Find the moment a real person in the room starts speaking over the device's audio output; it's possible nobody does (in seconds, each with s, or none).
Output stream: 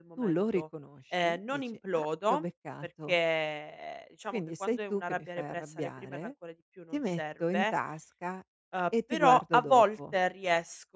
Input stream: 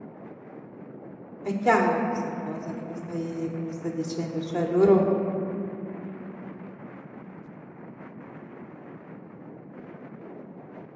1.4 s